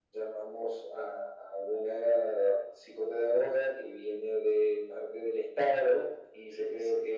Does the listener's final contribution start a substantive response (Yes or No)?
No